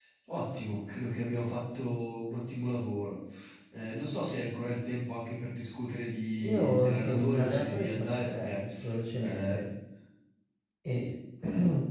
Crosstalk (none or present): present